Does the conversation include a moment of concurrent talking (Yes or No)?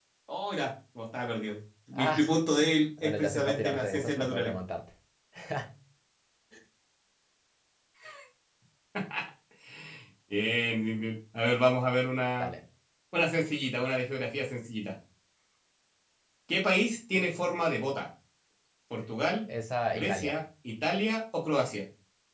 Yes